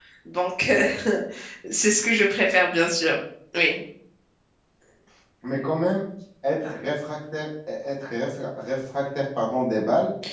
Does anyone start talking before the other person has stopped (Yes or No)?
No